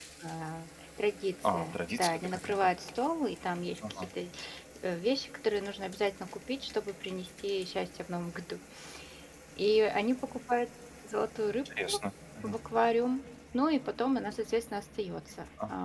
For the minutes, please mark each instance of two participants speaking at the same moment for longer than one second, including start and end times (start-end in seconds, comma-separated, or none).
1.4-2.7